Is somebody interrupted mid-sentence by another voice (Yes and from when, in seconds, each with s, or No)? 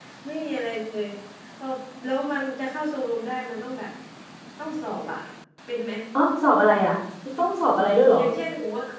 No